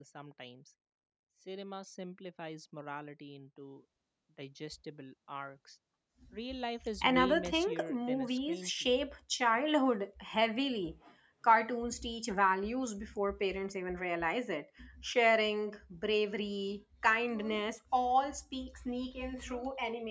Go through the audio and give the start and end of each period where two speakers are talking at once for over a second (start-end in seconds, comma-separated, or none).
7.0-8.9